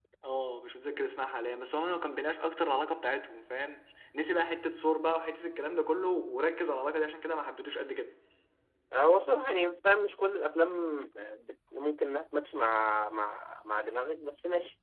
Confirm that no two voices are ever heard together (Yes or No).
Yes